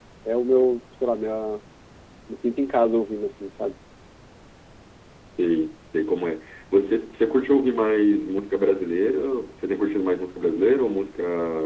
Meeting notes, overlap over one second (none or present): none